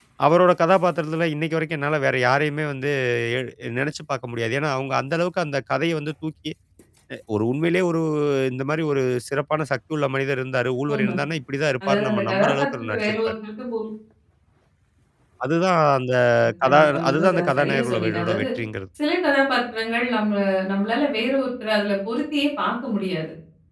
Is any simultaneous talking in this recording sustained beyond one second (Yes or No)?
Yes